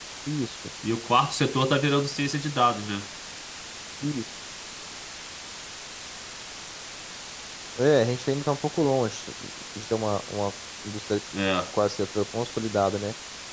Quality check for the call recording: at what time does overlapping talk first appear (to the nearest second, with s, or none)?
none